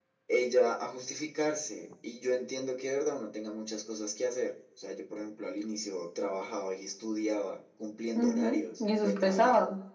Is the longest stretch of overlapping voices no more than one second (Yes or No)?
No